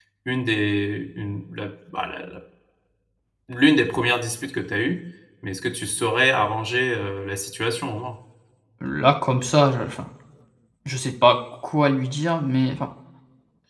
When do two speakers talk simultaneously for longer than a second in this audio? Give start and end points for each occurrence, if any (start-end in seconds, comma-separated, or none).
none